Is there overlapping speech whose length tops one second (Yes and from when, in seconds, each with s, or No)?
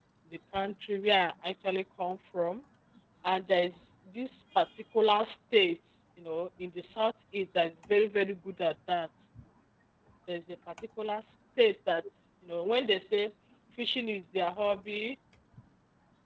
No